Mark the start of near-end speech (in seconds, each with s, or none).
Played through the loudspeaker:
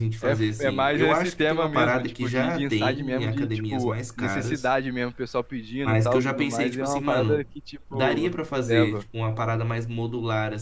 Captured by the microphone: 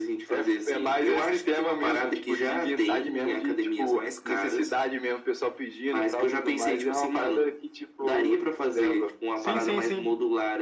9.3 s